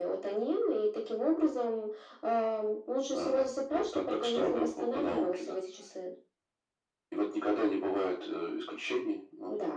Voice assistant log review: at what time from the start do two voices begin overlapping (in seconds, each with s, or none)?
3.1 s